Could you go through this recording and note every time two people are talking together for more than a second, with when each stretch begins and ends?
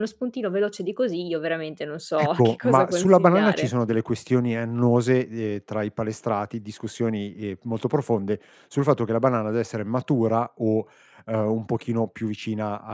2.2-3.7

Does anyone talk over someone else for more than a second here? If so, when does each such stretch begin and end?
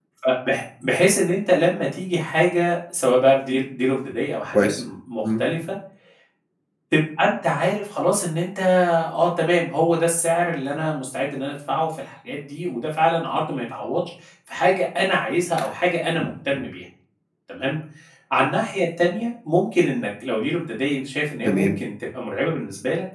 none

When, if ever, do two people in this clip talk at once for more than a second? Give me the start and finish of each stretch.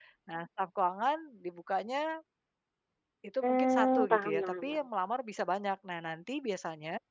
3.4-4.9

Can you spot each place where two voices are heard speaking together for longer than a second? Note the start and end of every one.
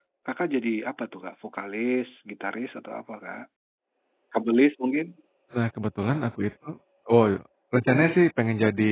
none

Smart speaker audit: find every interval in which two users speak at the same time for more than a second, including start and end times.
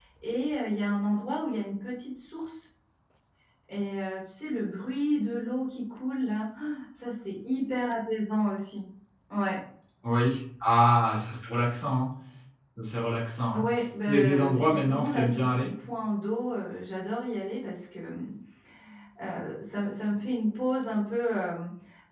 14.1-15.7

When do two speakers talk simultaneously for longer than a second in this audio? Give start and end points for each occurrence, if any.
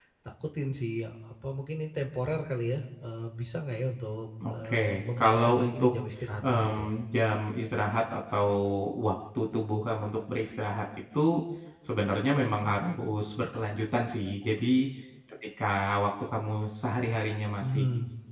4.5-5.9

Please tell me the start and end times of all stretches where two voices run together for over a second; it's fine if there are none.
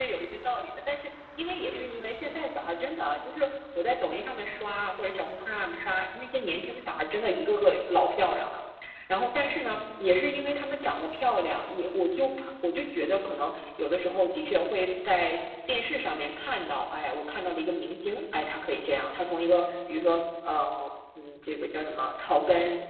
1.6-2.8

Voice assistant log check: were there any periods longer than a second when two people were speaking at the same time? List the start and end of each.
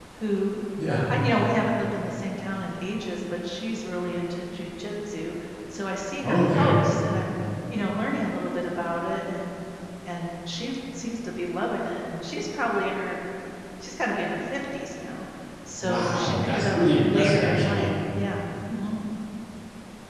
15.8-17.9

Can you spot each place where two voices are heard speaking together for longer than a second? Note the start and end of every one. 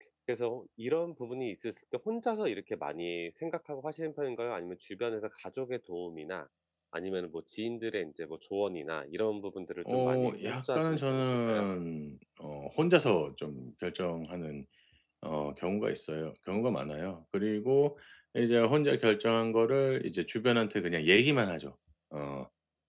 9.9-11.7

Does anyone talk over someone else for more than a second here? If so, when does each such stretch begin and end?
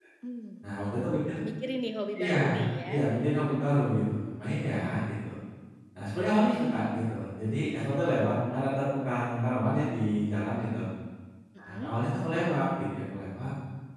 none

